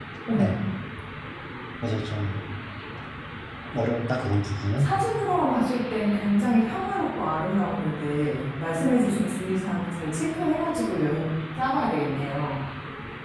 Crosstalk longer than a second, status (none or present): none